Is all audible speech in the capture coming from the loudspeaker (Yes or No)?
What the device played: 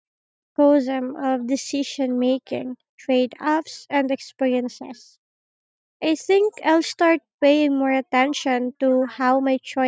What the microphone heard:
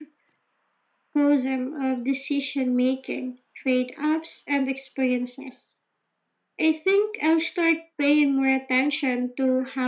Yes